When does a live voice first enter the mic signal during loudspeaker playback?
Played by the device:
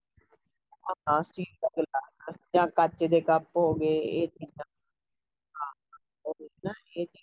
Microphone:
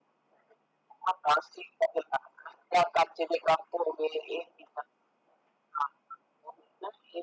none

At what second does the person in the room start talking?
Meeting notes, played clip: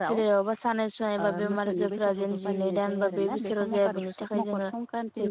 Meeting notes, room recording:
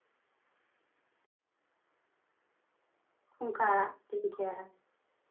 3 s

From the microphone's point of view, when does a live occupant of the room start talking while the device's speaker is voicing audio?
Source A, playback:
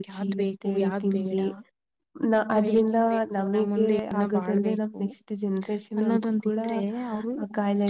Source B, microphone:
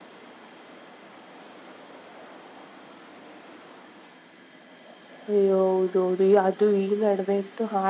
5 s

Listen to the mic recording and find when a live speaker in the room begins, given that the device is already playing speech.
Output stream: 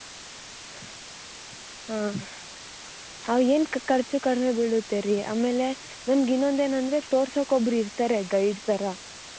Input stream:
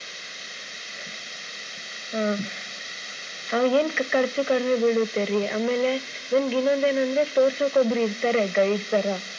none

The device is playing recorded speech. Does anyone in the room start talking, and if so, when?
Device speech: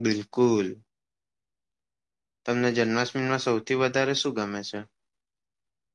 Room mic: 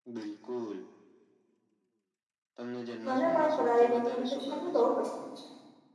3 s

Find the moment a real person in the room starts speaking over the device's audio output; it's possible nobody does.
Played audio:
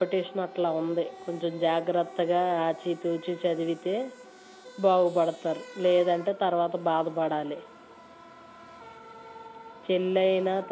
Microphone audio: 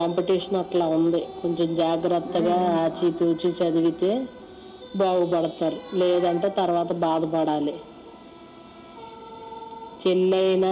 2 s

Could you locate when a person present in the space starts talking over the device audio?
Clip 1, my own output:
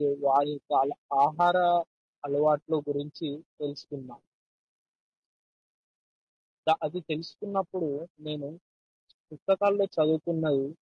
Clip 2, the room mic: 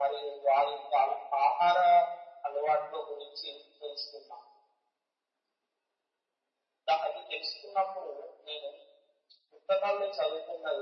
none

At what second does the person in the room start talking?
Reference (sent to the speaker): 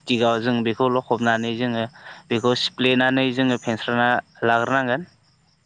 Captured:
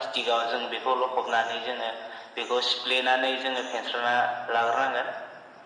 none

